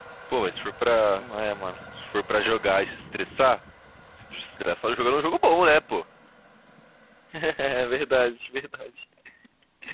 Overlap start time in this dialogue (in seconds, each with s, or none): none